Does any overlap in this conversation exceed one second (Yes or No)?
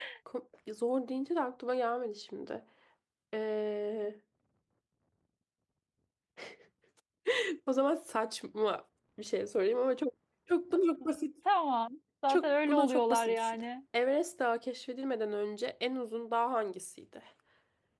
Yes